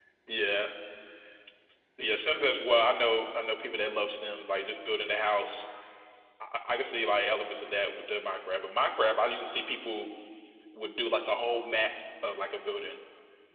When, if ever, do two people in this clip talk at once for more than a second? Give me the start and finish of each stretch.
none

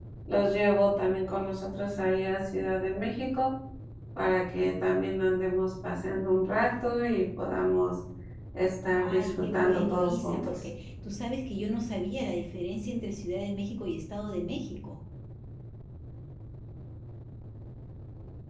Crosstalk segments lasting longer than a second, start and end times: 9.0-10.6

